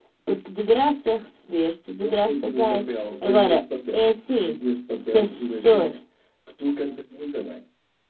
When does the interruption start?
2 s

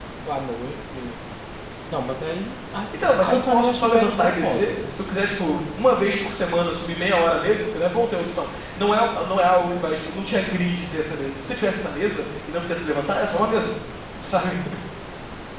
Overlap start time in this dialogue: 3 s

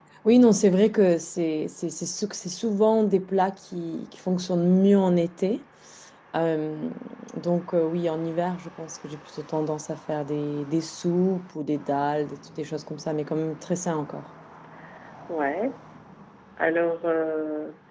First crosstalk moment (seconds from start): none

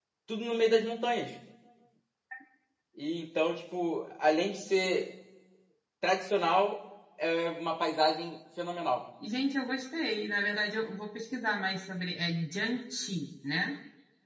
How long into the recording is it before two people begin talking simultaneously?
none

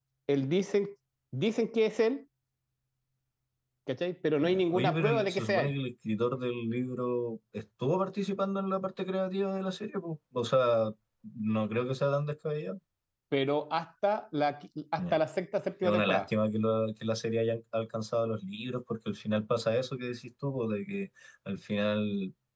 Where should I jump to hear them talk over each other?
4 s

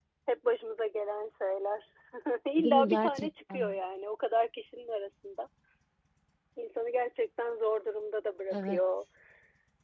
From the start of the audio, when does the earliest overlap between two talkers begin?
3 s

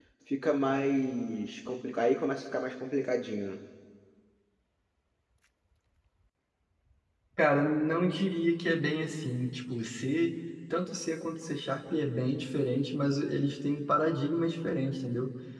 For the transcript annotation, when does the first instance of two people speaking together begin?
none

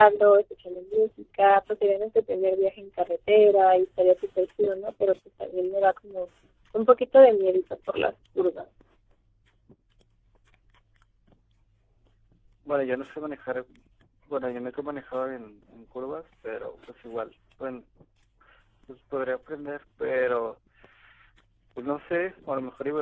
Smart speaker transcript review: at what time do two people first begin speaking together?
none

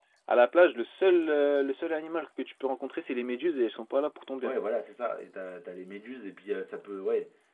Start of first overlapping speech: none

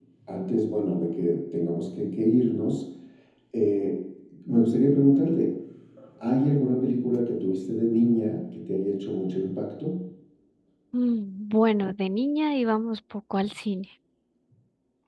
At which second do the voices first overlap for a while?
none

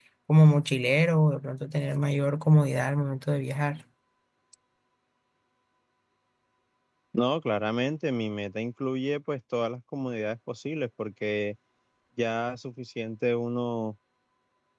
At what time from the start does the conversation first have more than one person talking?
none

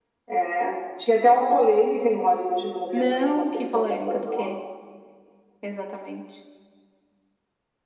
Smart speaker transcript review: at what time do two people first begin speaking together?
3 s

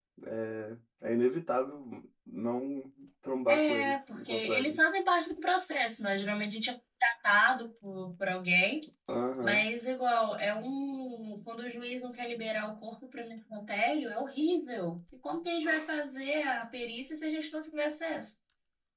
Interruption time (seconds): 3 s

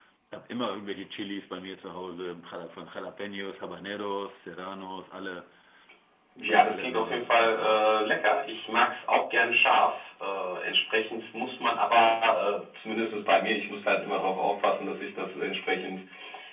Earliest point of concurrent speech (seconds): 6 s

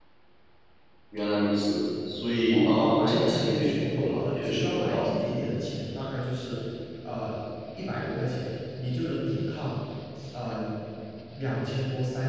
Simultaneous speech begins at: 2 s

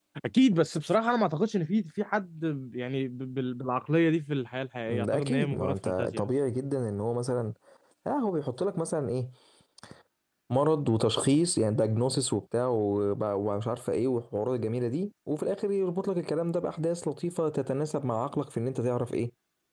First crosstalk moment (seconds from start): 5 s

